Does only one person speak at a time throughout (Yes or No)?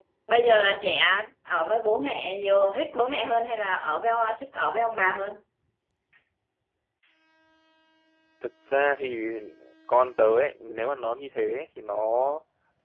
Yes